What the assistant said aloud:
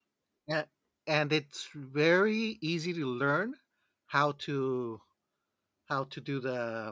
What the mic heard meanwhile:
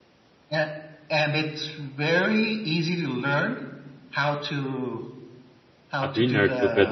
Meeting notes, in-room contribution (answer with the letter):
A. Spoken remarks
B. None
A